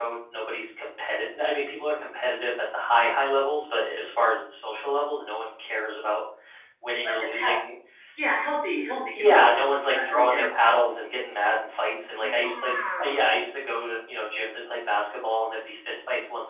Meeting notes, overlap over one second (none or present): present